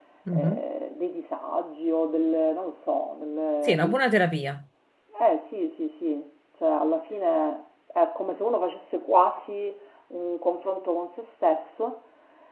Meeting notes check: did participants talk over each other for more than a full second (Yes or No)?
No